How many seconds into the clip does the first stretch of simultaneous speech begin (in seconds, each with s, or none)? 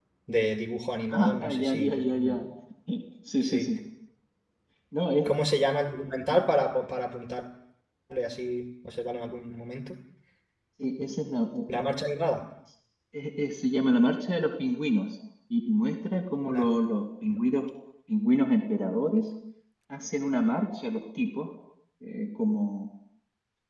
1.1 s